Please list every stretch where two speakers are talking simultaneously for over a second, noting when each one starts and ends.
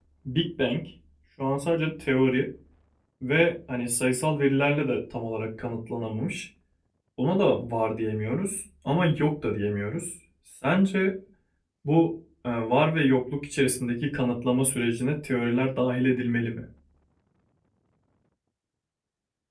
none

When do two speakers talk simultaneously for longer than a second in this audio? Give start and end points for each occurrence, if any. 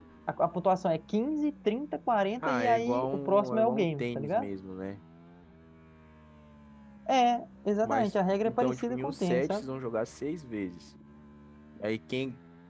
2.4-4.5, 7.8-9.6

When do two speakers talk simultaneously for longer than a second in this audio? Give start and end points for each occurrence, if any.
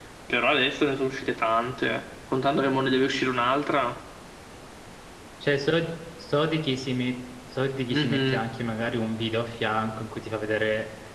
none

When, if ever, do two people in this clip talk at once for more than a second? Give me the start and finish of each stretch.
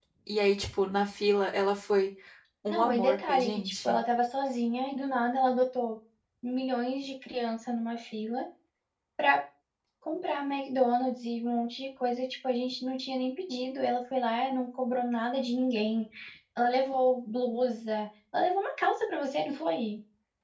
2.7-4.0

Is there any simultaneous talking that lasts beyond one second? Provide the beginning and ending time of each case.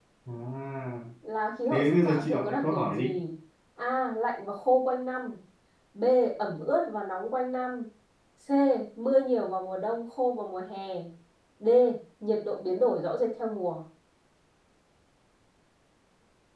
1.7-3.1

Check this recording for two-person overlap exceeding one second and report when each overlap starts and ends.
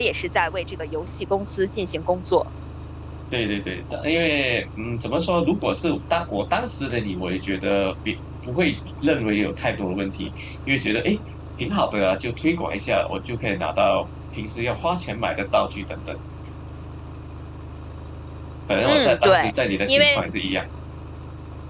18.9-20.2

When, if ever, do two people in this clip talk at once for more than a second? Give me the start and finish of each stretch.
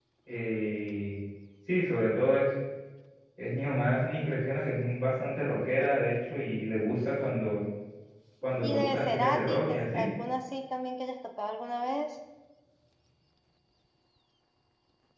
8.6-10.0

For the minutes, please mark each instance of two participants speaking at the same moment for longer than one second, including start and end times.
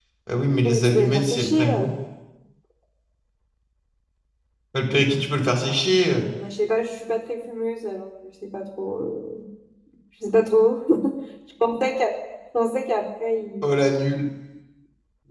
0.6-1.9

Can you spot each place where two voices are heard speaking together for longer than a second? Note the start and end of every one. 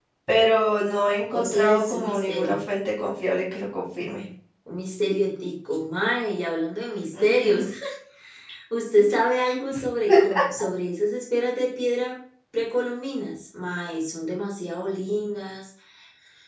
1.3-2.6

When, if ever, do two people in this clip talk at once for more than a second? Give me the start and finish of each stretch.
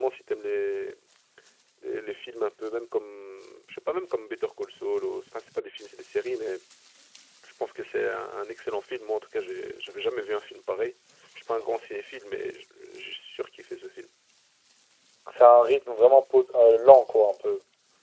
none

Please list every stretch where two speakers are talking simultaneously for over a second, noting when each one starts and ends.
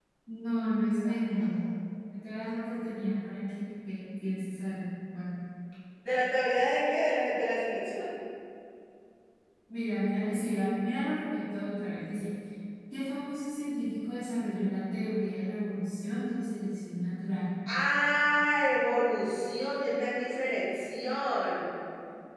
none

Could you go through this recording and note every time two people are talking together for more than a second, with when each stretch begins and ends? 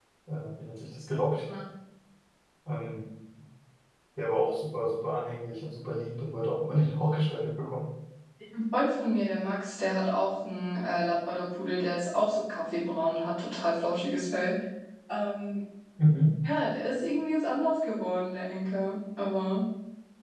none

